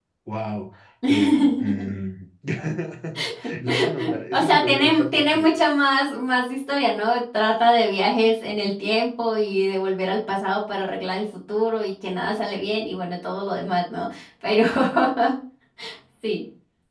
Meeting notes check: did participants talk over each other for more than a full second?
Yes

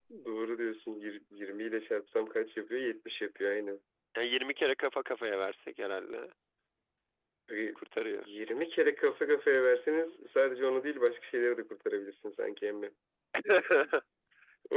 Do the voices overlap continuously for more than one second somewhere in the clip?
No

